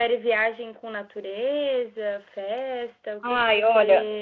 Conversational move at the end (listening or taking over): taking over